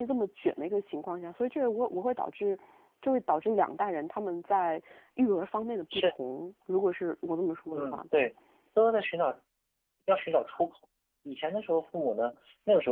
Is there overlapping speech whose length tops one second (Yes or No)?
No